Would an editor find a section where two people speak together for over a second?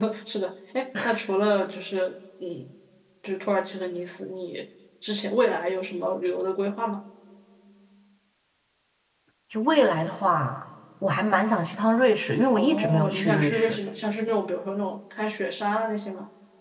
Yes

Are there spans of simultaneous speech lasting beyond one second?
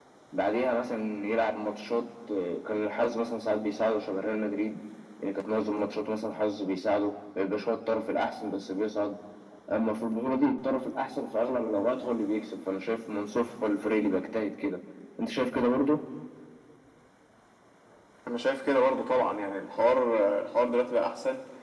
No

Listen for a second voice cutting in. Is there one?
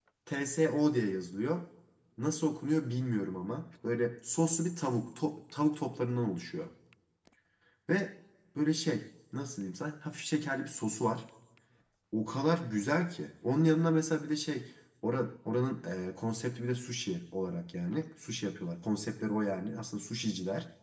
No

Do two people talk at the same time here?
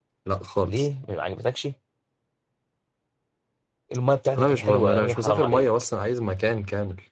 Yes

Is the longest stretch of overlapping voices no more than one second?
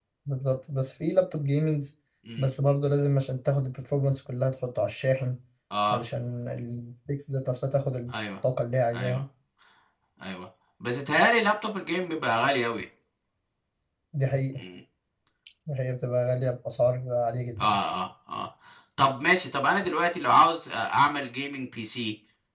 Yes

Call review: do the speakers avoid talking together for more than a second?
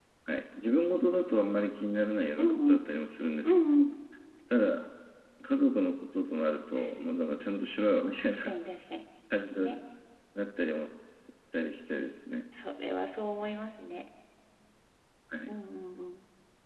Yes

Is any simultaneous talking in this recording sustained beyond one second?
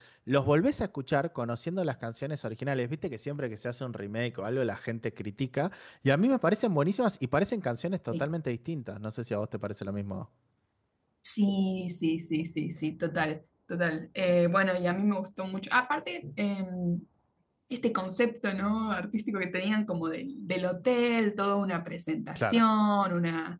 No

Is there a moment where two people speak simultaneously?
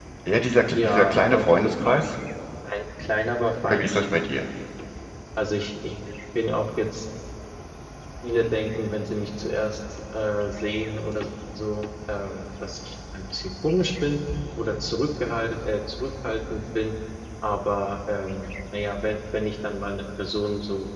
Yes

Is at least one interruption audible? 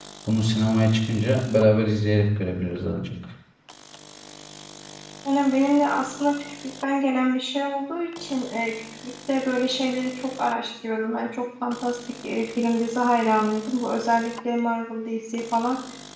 No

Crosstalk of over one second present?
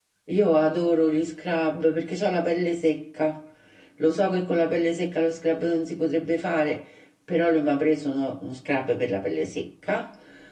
No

